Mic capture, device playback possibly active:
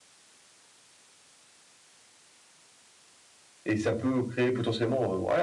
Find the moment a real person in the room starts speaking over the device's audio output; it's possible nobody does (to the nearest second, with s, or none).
4 s